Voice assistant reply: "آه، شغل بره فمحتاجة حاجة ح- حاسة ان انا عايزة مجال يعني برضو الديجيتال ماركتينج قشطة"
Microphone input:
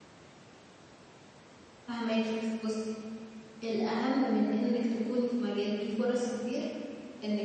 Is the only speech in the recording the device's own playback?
No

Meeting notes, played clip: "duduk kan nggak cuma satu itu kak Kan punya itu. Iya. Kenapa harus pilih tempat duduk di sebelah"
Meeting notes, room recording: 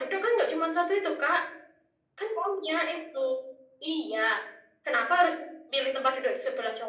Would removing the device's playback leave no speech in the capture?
Yes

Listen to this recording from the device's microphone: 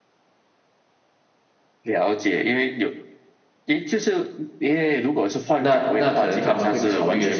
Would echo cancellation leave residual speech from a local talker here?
Yes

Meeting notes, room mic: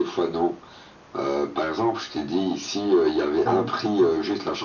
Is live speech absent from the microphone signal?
No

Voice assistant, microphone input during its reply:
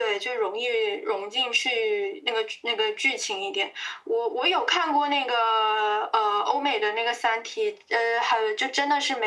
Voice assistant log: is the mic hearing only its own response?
Yes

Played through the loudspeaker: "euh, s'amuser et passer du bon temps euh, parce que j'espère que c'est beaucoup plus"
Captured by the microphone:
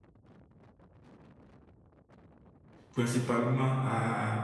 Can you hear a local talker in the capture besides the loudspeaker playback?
Yes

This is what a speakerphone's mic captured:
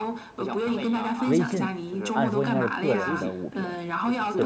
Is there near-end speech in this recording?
Yes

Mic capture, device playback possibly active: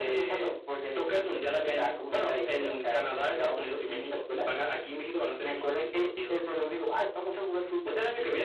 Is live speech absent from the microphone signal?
Yes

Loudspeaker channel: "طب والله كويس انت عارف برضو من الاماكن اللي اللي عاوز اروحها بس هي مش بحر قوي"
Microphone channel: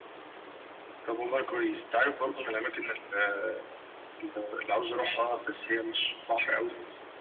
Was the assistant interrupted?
No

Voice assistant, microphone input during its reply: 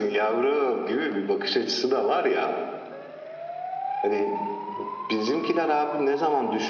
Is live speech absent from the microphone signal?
Yes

